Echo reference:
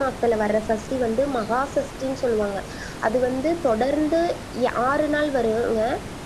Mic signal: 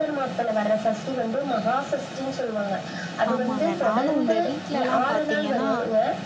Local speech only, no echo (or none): ஆமாங்க நானு இந்த வீட்லல்லா பாத்திங்கன்னா